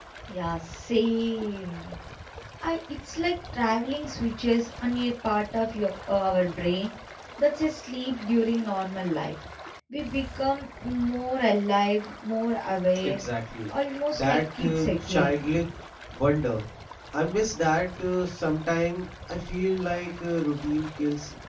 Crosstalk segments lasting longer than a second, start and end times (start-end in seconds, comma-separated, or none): 14.1-15.4